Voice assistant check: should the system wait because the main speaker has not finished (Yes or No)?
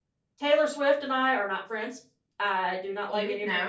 Yes